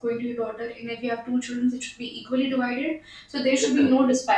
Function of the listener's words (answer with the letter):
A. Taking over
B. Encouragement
B